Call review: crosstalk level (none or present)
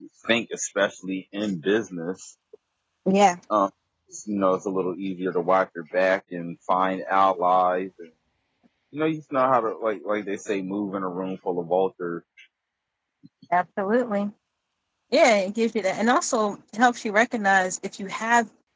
none